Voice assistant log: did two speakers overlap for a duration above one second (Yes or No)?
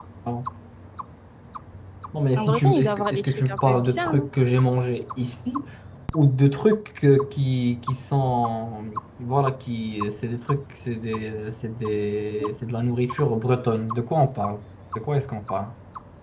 Yes